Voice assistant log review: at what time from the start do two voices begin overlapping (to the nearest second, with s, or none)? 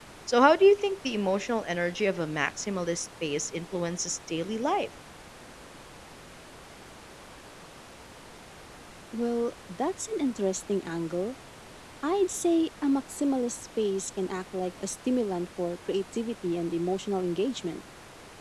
none